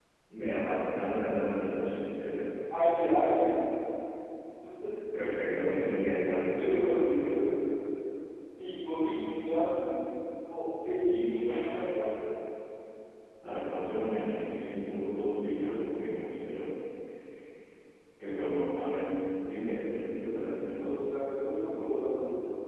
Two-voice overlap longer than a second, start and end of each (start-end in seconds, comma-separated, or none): none